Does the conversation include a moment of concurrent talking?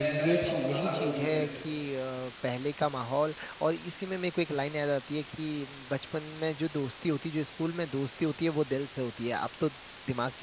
Yes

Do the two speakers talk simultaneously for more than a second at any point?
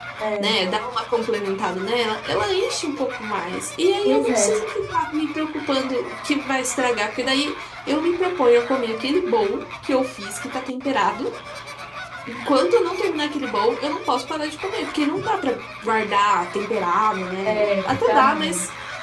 Yes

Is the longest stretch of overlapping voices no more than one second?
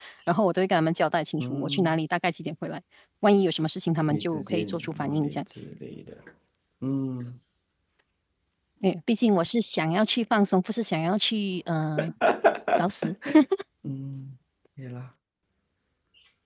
No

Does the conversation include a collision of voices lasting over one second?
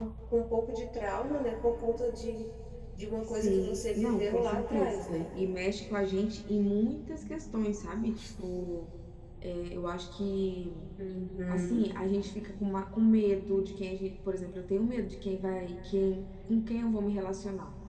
Yes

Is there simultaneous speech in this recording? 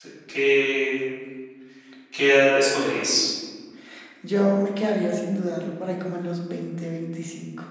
No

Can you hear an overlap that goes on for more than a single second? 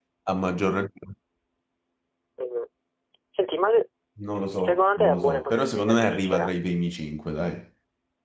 Yes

